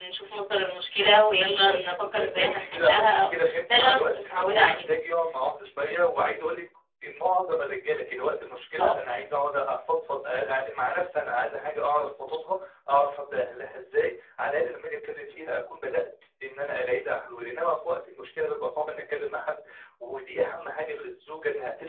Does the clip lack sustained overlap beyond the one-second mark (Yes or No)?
No